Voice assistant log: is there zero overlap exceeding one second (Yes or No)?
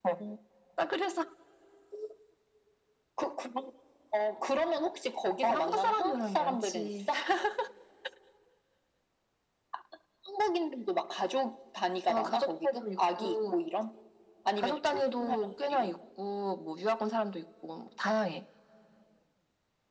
No